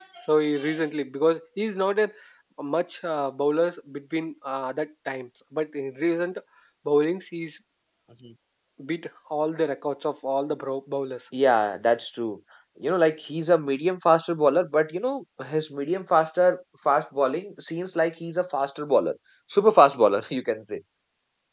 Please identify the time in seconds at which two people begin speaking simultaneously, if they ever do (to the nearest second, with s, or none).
none